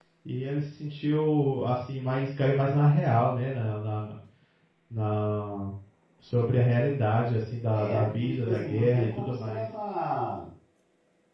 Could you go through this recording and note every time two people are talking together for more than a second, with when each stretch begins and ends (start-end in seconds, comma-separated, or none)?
7.7-9.7